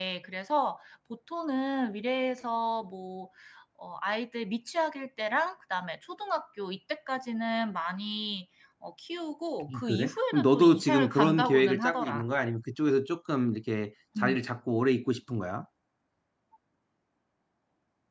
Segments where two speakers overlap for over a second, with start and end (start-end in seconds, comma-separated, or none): 9.7-12.2